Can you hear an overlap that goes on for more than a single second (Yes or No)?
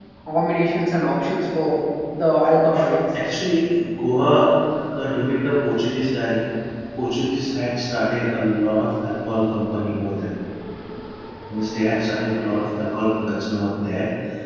No